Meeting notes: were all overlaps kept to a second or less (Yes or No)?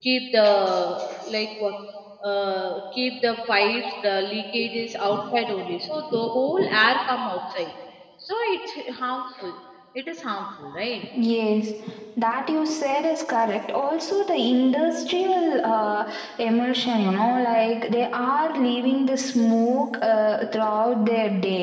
Yes